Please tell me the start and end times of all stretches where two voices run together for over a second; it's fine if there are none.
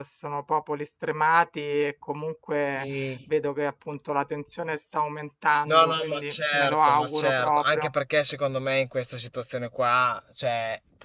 5.7-7.9

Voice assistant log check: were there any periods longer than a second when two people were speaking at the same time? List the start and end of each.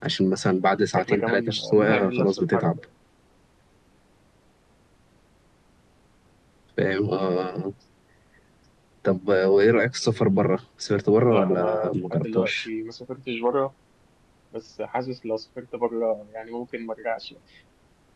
1.0-2.7, 11.3-12.7

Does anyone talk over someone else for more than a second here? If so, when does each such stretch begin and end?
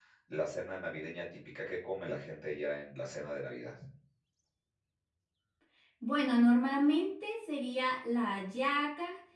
none

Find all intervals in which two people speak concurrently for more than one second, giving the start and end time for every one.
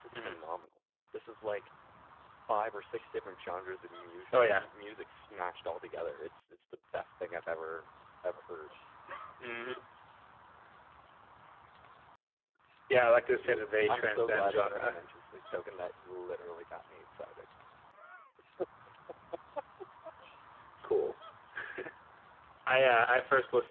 13.4-15.0

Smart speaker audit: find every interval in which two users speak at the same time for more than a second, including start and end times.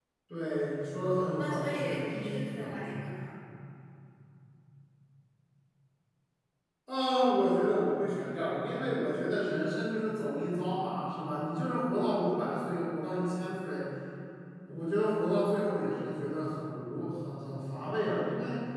1.4-2.8

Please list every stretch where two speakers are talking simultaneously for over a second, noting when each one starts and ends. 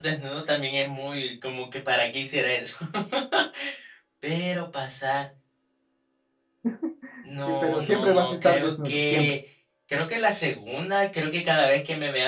7.6-9.3

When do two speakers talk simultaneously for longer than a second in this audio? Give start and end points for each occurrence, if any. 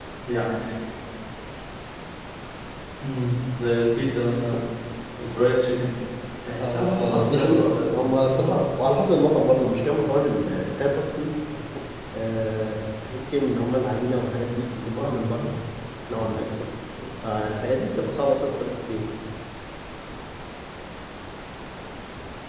6.6-7.9

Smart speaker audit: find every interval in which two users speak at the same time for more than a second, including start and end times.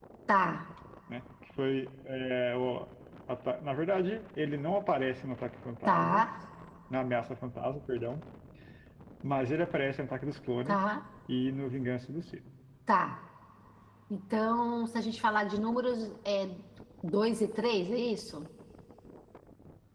none

